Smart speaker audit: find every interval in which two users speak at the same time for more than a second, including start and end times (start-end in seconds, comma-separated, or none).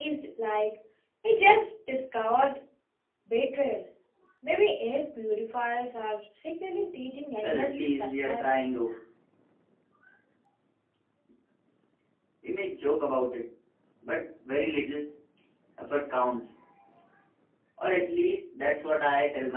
7.4-8.6